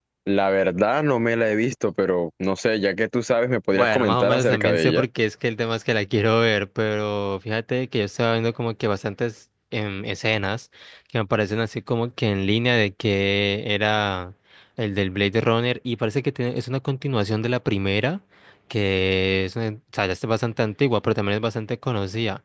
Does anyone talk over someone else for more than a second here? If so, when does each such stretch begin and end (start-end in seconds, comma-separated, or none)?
3.7-5.0